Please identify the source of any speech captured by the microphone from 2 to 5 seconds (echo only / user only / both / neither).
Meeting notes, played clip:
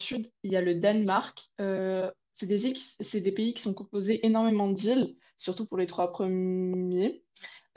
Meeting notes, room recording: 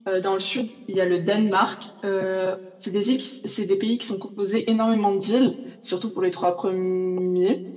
echo only